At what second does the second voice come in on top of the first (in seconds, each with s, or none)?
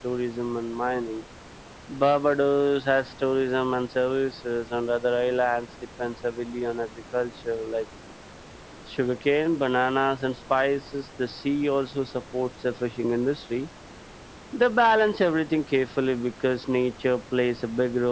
none